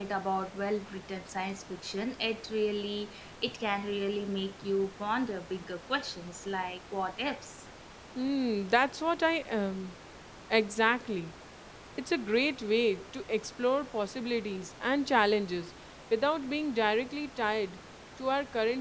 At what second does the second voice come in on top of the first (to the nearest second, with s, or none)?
none